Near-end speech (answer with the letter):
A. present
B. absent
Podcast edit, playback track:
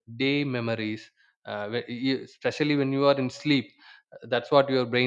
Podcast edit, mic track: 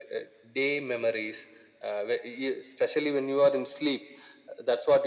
B